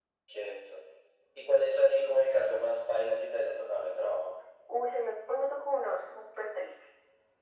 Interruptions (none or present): none